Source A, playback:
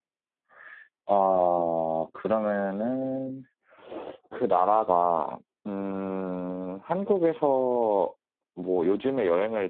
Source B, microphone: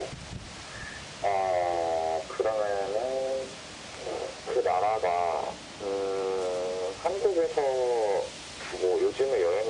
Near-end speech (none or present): none